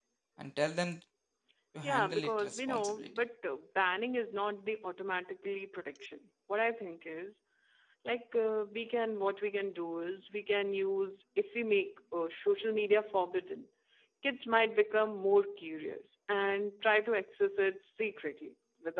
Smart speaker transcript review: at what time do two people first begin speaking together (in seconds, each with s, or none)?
1.8 s